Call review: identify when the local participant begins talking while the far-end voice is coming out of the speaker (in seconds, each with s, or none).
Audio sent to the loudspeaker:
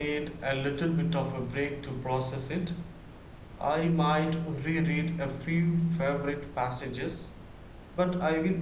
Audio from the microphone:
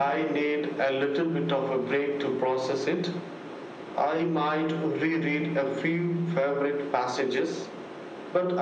none